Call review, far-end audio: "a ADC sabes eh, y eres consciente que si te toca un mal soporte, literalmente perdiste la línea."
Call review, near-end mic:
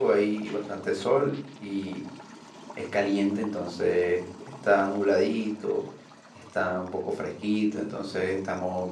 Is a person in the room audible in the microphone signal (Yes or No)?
Yes